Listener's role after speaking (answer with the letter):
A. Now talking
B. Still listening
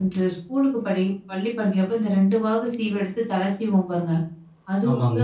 B